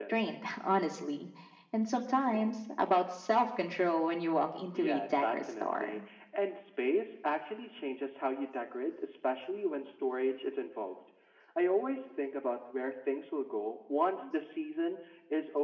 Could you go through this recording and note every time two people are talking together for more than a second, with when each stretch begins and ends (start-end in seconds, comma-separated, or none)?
4.7-6.0